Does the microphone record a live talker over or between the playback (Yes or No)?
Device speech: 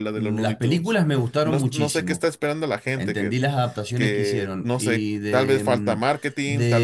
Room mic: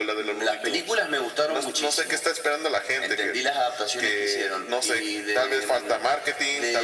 No